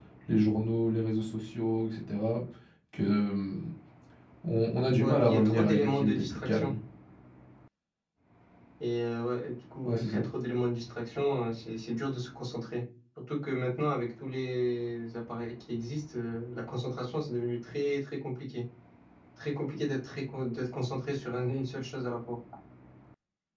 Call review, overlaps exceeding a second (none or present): present